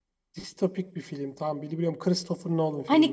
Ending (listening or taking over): taking over